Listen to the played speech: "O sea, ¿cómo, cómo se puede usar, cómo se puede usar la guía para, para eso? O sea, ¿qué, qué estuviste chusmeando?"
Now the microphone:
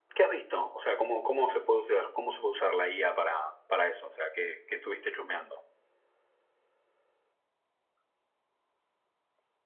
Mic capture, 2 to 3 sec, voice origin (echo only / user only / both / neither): echo only